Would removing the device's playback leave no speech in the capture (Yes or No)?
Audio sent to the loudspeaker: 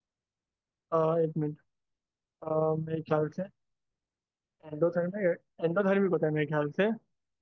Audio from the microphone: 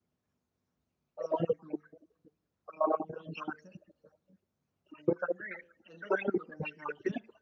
Yes